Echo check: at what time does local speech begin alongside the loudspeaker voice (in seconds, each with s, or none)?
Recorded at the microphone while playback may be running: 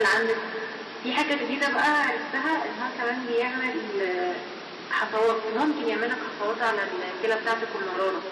none